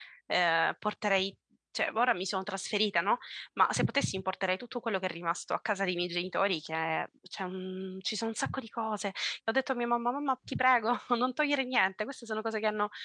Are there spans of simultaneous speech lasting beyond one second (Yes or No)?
No